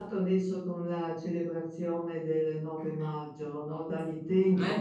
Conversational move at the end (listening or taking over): listening